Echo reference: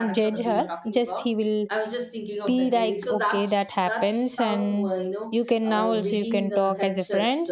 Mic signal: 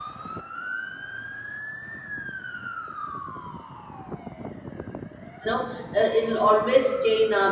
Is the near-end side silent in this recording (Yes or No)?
No